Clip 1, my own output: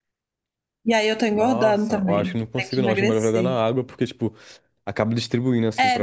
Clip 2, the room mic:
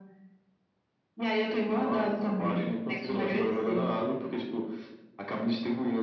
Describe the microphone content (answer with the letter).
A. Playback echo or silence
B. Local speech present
A